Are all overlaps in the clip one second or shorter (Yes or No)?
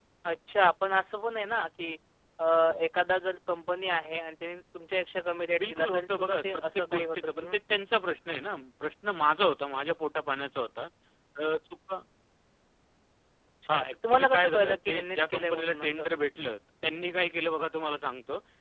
No